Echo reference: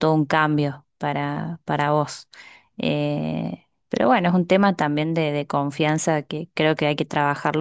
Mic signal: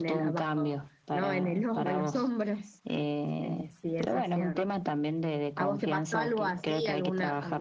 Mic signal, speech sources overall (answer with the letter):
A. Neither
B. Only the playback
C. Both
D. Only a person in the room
C